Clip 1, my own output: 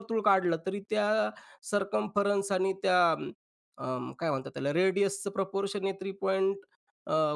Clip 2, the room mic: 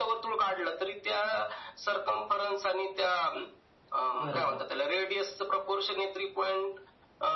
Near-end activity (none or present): present